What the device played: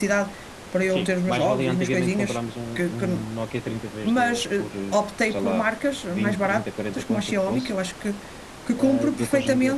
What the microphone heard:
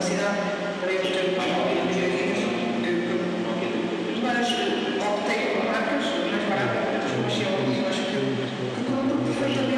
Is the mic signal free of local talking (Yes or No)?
No